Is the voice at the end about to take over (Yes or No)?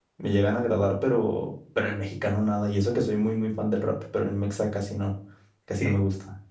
Yes